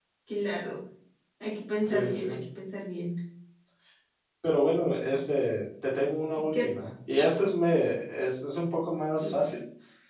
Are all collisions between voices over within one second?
Yes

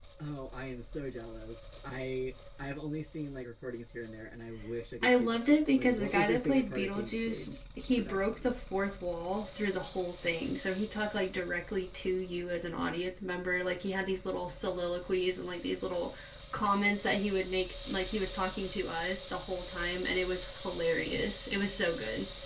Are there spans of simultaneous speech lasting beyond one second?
Yes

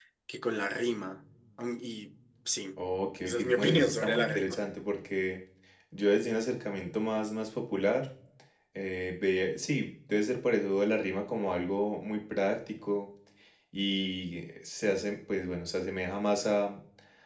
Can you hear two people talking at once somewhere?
Yes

